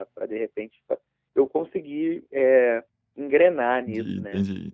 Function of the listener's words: taking over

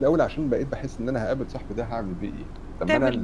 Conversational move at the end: listening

